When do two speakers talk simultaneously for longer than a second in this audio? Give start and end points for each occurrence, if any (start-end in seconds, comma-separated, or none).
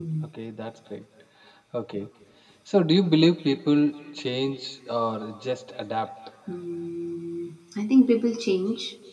none